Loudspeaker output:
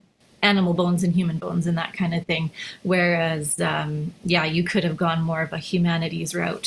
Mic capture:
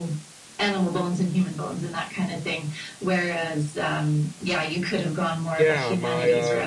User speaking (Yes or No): Yes